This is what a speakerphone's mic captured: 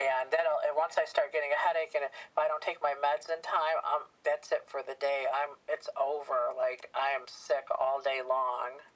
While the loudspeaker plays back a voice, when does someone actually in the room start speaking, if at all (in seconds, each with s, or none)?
none